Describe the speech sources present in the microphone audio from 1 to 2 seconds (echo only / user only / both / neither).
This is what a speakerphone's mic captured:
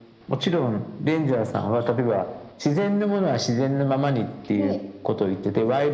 echo only